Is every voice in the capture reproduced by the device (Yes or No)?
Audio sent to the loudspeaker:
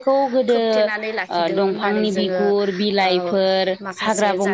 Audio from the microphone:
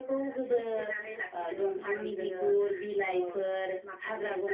Yes